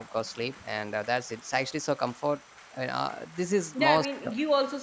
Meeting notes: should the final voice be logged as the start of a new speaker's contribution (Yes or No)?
Yes